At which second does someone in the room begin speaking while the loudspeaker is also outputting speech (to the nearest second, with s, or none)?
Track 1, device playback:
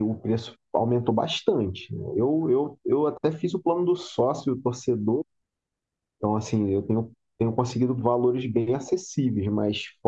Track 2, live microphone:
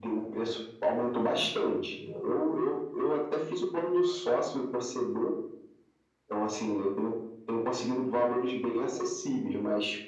none